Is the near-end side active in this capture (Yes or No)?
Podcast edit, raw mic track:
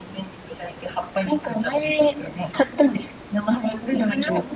No